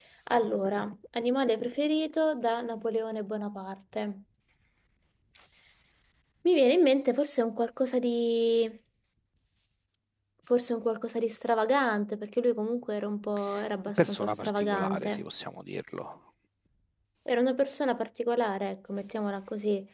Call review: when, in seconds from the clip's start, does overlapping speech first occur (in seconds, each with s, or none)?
14.0 s